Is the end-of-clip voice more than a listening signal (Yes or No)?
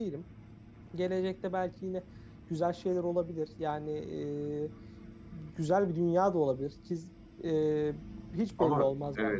Yes